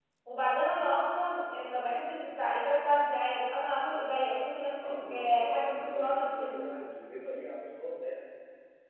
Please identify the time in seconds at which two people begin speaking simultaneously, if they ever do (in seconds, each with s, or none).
4.8 s